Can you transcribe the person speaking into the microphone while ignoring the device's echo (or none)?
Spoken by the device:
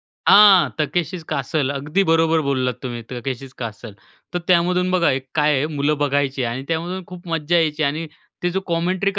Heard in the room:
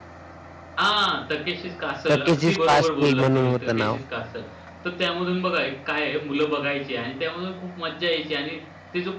Takeshi's Castle म्हणून होतं नाव.